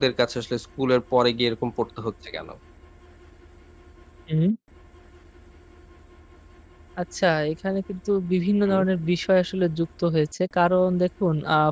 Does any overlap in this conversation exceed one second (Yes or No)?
No